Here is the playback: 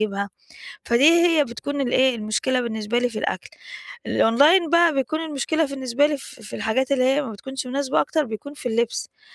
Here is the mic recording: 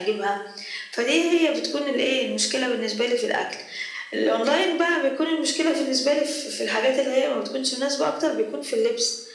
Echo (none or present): present